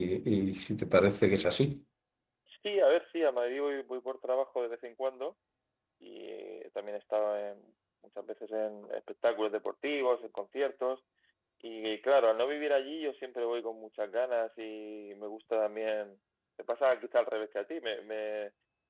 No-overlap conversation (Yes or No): Yes